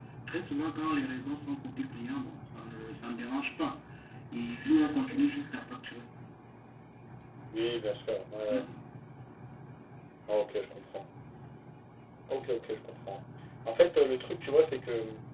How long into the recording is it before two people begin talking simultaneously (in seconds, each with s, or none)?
none